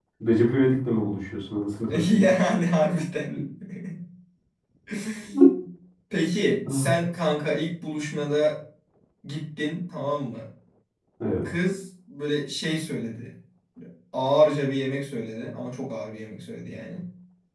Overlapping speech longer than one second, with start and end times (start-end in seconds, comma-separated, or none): none